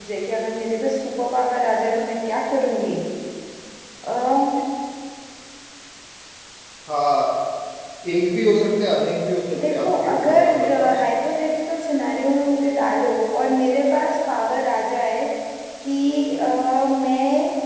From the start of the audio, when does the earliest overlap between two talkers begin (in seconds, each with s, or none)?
9.5 s